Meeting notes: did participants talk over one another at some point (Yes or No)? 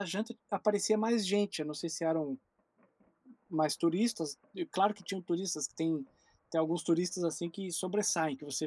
No